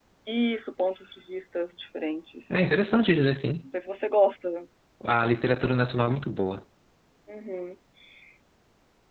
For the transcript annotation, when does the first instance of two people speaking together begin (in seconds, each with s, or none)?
none